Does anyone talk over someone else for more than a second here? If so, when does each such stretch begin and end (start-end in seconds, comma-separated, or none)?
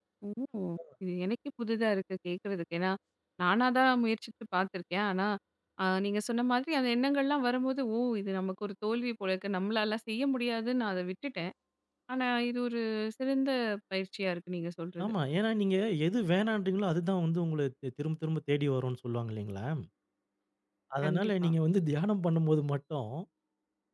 none